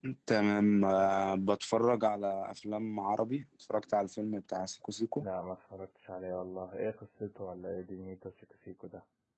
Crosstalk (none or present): none